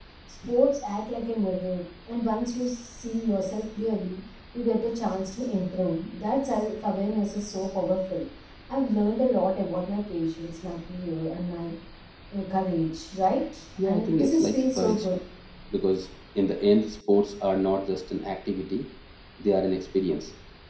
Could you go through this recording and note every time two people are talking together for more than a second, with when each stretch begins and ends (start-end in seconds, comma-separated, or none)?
13.8-15.1